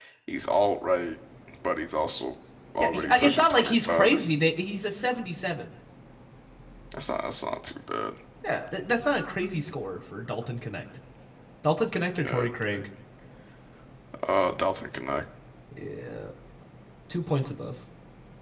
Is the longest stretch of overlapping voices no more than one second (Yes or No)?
No